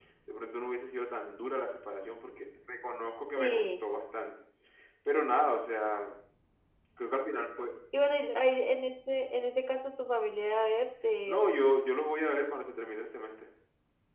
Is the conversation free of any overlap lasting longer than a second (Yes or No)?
Yes